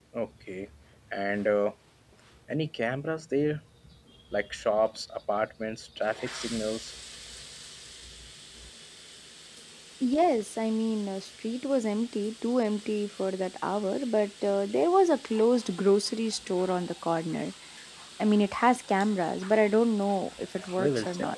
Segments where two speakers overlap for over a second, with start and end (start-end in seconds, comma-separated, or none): none